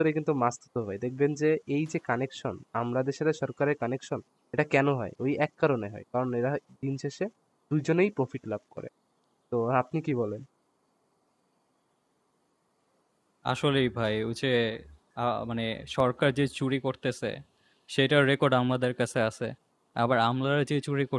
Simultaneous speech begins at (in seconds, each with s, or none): none